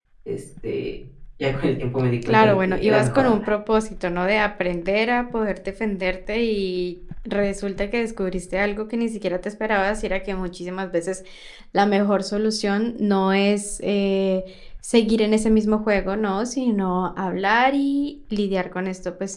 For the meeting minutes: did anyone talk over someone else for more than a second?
Yes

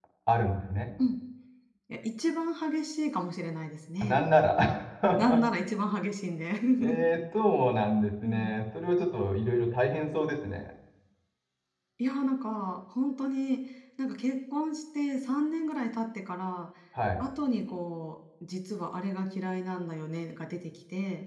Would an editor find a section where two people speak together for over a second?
No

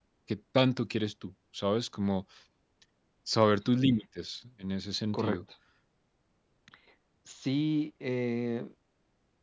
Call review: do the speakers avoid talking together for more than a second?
Yes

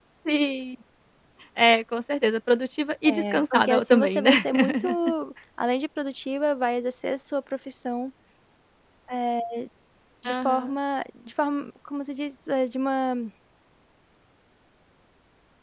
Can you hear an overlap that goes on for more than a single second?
Yes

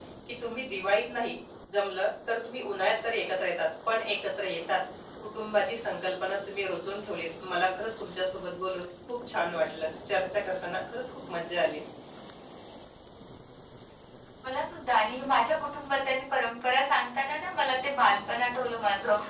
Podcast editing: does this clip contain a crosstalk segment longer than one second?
No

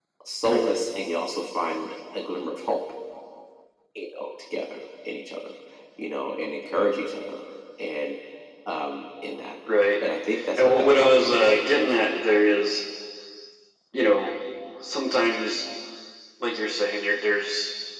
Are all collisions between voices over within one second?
No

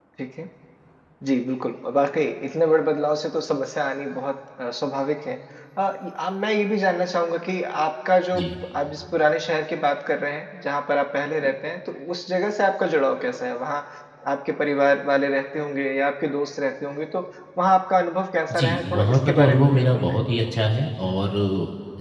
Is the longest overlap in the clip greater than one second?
Yes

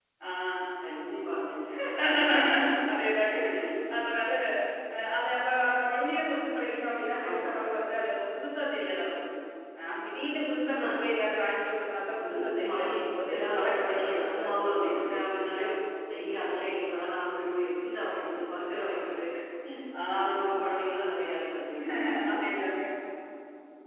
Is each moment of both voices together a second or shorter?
No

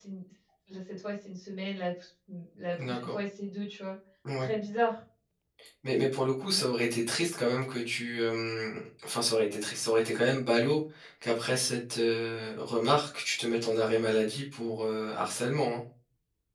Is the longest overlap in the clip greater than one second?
No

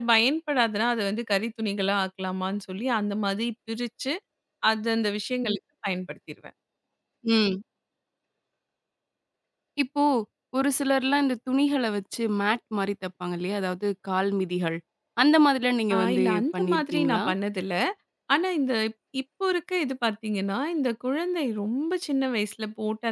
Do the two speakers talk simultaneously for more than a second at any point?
Yes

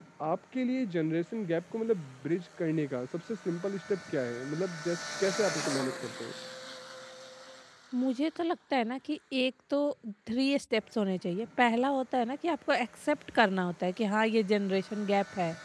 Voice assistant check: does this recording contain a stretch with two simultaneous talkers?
No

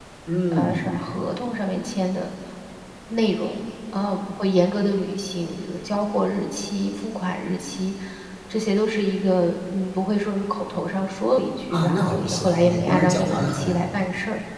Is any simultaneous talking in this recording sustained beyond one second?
Yes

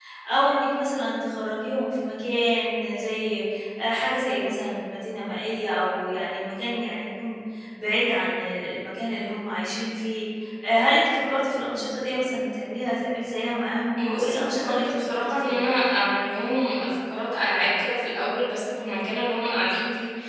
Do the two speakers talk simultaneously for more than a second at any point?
Yes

